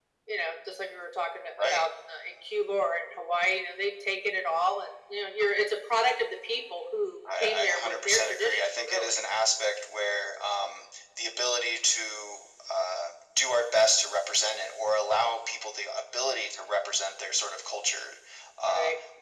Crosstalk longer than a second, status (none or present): present